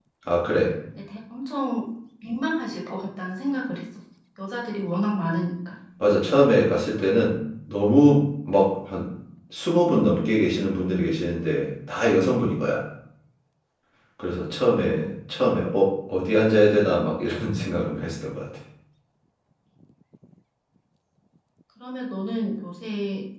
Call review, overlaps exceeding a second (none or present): none